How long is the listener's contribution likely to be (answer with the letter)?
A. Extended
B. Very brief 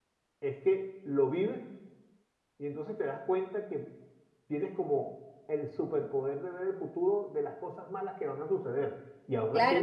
A